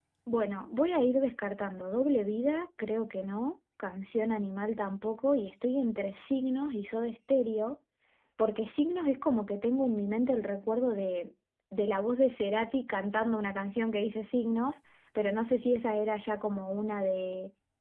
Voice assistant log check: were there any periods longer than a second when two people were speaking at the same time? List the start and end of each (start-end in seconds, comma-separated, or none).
none